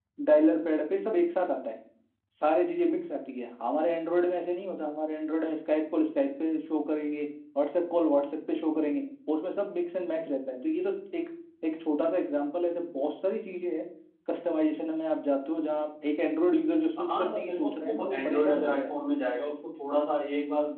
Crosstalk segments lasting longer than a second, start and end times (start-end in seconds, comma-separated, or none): 17.1-18.9